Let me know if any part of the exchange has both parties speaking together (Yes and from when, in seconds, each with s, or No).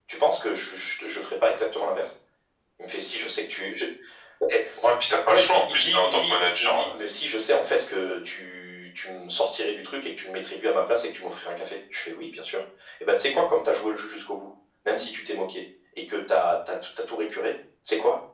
Yes, from 5.3 s